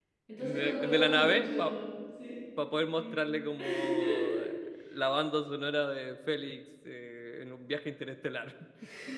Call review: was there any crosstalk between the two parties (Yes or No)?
Yes